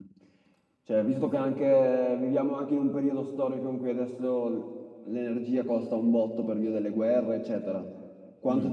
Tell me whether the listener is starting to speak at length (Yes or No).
No